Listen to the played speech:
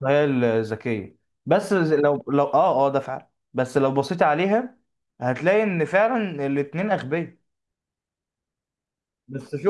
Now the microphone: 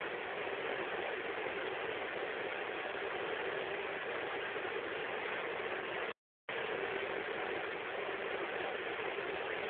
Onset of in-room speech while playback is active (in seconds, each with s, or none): none